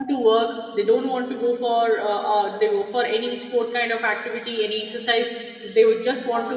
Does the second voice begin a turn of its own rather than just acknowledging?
No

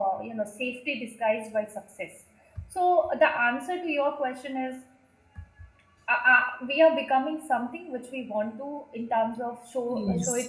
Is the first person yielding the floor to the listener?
No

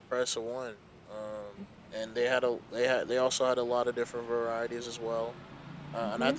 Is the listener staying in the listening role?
Yes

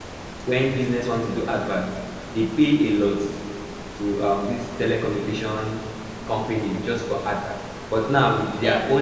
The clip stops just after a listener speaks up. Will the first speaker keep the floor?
Yes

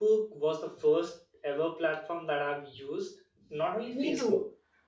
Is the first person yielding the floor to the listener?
No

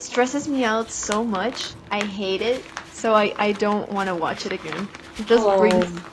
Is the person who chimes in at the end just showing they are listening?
Yes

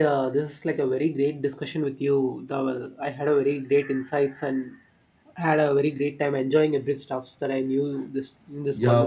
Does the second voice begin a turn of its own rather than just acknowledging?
Yes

